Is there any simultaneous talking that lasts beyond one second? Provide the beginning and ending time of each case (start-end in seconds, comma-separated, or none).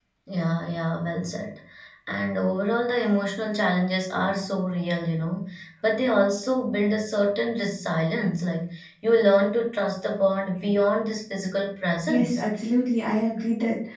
none